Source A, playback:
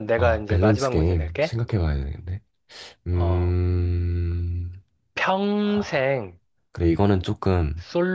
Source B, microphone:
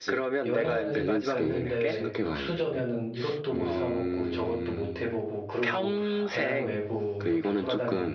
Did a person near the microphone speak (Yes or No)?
Yes